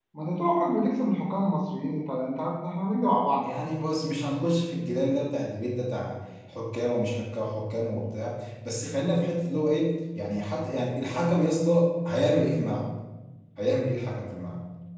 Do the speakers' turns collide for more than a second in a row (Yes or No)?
No